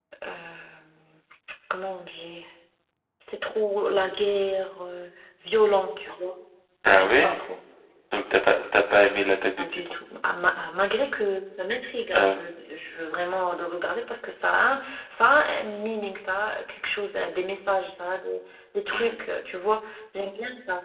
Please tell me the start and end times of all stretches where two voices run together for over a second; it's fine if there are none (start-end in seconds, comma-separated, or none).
none